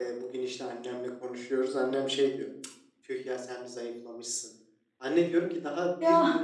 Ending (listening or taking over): listening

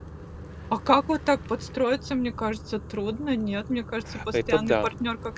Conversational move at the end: taking over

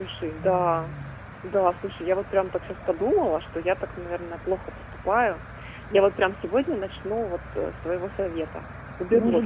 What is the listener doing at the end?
taking over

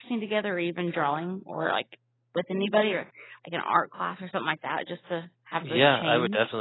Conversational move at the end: taking over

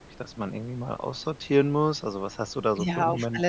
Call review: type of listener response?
taking over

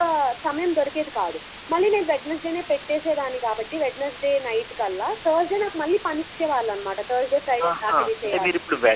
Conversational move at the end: taking over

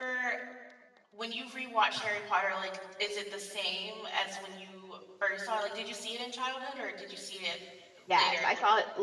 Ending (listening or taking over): taking over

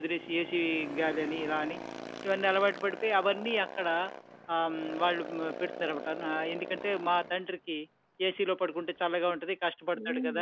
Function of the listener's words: taking over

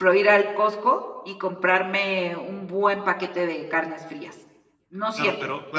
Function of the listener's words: taking over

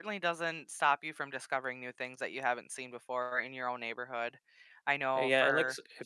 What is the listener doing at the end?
taking over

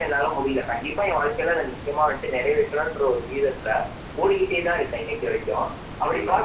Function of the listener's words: listening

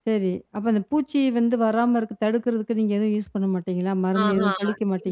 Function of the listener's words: taking over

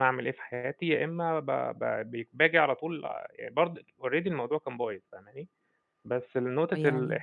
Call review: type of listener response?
listening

